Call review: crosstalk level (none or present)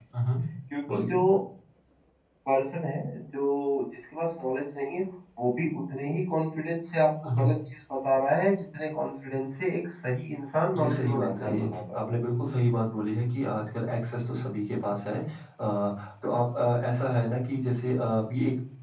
present